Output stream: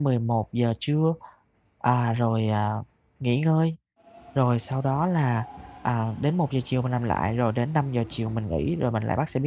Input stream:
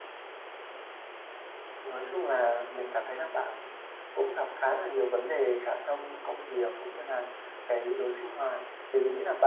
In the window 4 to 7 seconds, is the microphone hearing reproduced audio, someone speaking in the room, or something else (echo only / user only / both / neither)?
user only